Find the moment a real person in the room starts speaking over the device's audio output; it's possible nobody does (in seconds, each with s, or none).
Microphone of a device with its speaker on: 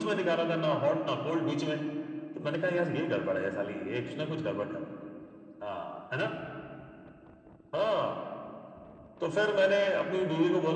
none